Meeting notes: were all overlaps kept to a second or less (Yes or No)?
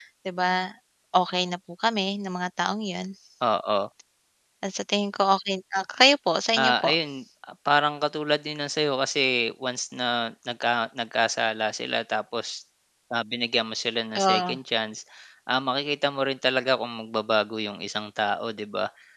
Yes